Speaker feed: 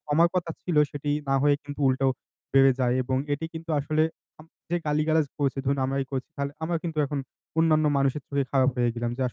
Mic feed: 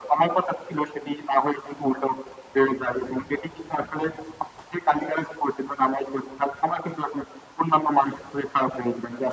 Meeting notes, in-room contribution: none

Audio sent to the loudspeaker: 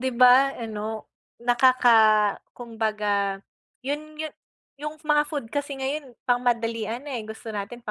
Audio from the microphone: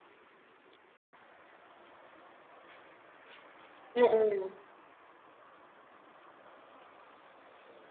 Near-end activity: present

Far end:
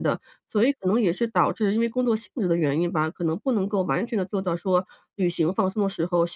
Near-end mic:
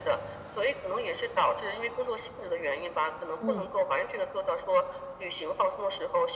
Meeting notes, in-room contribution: present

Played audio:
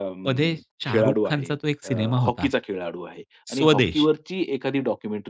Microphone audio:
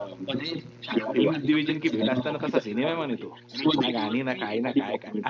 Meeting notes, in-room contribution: present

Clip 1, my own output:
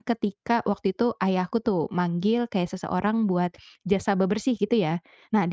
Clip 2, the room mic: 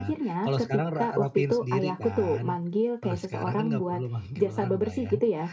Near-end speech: present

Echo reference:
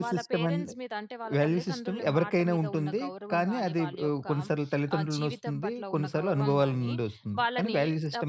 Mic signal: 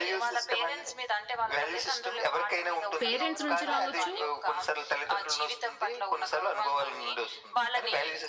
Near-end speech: present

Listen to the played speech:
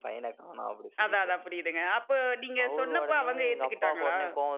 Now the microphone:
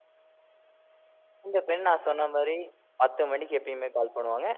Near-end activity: present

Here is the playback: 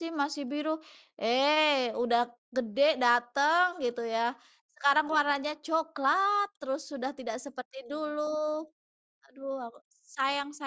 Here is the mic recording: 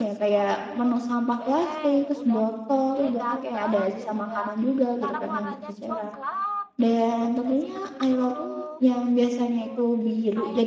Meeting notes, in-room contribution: present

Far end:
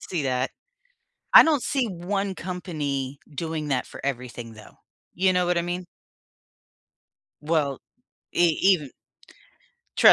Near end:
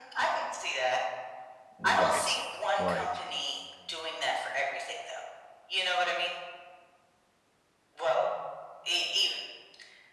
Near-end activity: present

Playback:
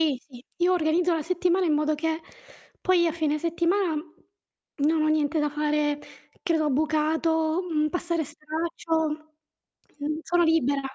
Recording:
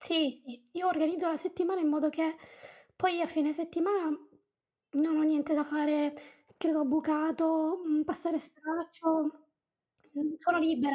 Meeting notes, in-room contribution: none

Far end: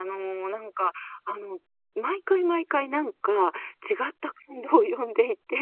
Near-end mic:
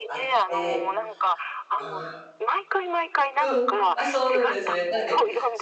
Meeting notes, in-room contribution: present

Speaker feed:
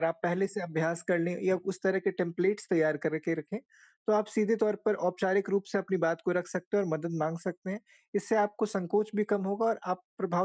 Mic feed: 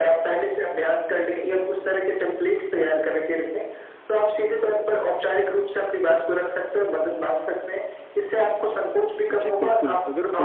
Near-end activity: present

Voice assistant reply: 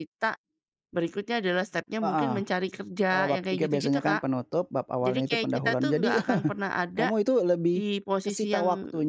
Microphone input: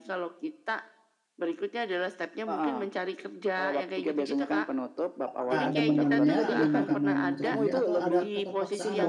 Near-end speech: present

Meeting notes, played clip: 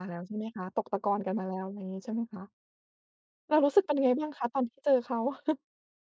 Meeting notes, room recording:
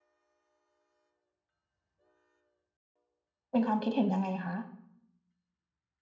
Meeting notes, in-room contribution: present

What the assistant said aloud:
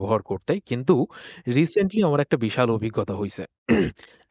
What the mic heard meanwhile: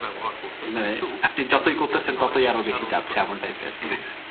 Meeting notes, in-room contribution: present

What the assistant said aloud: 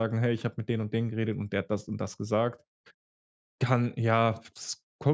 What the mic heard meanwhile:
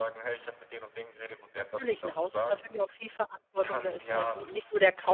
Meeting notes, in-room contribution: present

